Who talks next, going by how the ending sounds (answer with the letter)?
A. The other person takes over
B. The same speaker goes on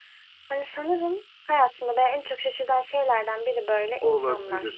A